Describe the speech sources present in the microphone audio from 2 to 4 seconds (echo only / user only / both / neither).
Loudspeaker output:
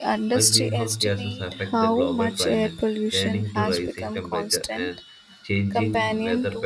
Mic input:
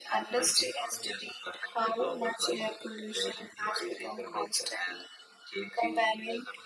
echo only